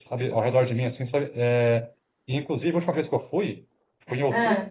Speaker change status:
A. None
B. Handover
A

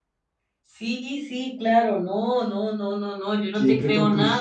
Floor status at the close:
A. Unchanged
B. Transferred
B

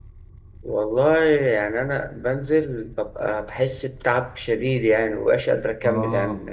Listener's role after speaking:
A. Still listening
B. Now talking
B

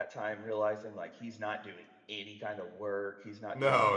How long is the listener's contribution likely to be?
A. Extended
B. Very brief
A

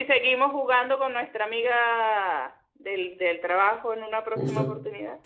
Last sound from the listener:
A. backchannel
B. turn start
B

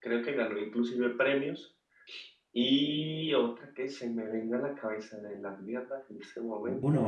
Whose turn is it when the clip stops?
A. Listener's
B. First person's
A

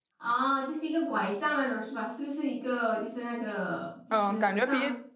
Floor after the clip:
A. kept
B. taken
B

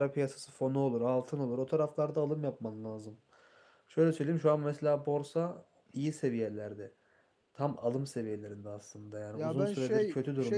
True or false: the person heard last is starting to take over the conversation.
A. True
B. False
A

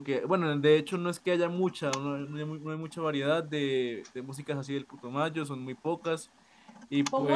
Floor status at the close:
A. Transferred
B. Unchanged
A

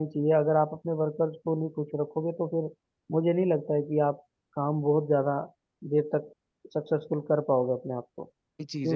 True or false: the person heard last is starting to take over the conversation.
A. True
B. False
A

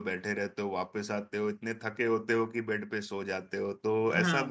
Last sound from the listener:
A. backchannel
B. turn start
B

